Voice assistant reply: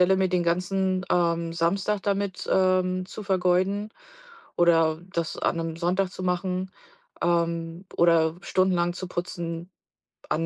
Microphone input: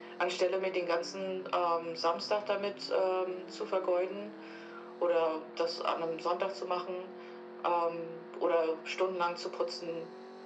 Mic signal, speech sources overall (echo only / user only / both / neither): echo only